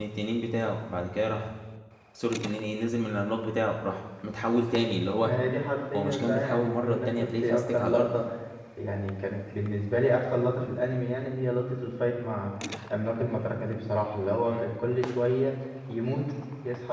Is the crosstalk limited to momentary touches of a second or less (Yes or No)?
No